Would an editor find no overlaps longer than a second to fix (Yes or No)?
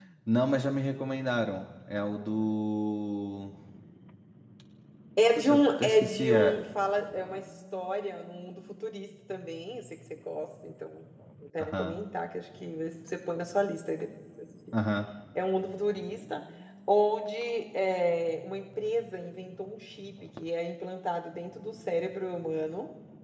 No